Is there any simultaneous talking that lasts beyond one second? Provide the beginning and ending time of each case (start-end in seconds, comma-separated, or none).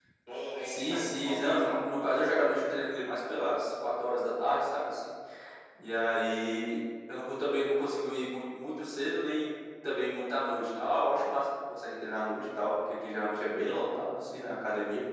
0.6-1.9